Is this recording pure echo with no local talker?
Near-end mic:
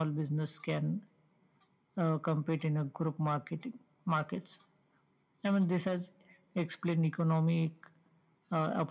Yes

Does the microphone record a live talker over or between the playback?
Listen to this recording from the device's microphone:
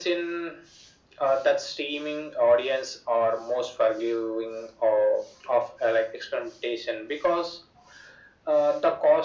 No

